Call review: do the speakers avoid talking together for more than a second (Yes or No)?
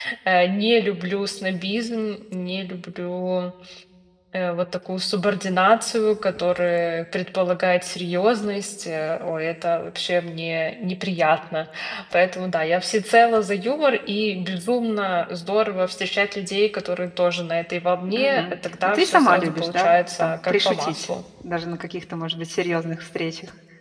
No